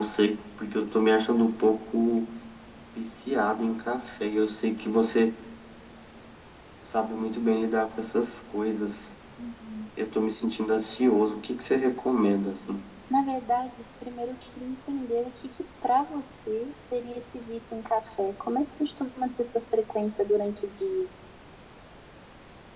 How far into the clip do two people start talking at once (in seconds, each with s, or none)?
none